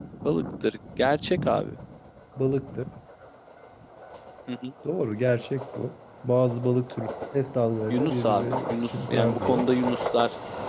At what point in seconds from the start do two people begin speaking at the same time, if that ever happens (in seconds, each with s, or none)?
7.9 s